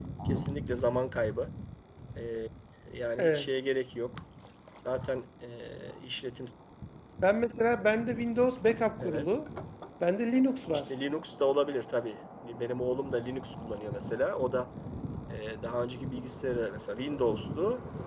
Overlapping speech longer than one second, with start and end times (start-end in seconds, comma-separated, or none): none